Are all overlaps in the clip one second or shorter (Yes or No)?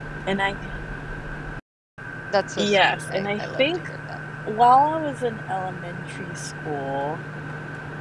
No